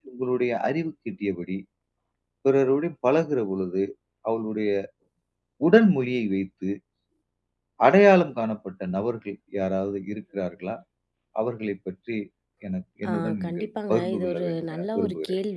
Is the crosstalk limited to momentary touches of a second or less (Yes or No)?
No